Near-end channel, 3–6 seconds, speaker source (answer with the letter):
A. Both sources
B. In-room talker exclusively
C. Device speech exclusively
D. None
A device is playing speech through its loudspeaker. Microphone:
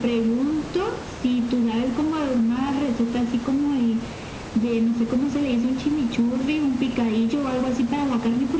C